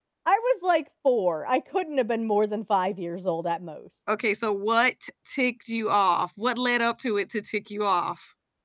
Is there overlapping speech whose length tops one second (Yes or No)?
No